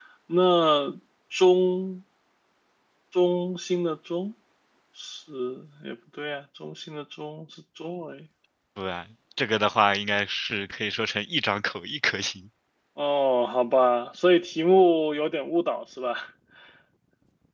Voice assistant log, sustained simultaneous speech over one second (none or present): none